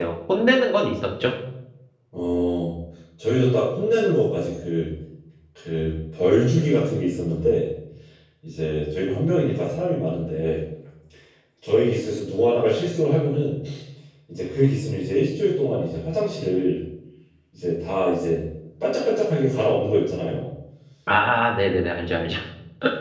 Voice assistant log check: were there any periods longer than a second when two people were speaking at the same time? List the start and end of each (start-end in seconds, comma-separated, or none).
none